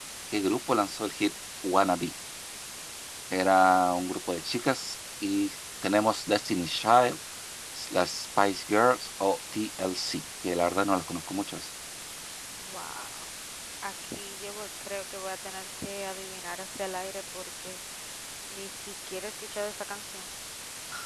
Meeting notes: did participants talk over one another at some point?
No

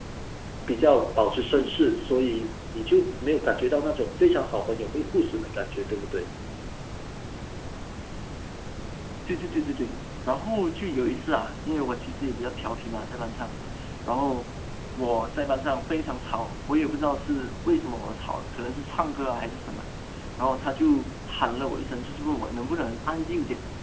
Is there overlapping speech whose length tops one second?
No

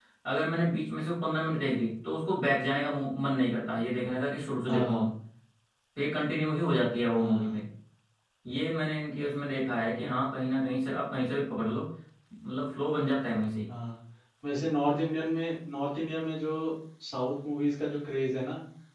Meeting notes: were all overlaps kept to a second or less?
Yes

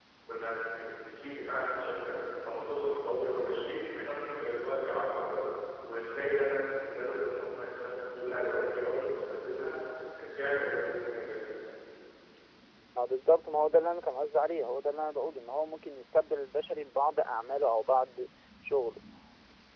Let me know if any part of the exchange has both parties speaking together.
No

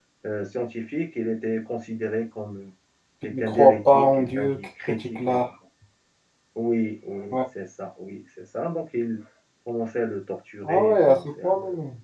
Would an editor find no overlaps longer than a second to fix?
No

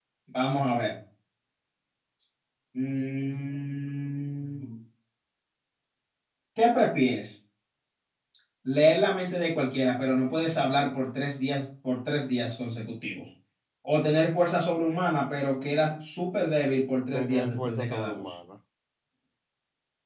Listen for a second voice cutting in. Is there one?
Yes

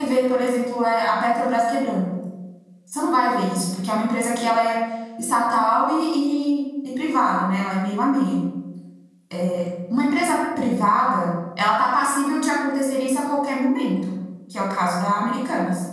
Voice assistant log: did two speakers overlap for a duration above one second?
No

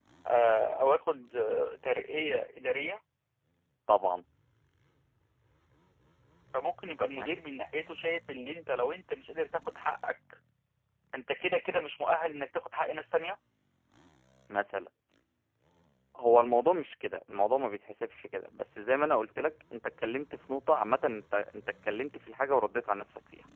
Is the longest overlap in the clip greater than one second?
No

